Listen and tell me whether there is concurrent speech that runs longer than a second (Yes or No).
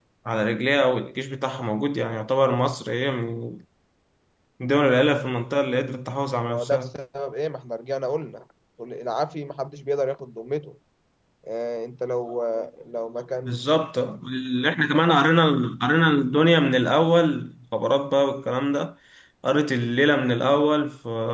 No